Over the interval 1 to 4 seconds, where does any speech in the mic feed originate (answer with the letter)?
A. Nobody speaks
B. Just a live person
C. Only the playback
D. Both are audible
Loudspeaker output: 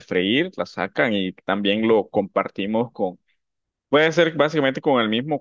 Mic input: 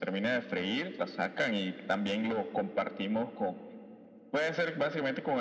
C